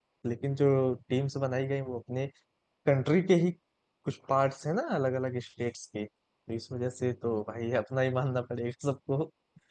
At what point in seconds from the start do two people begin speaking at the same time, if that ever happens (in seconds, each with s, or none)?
none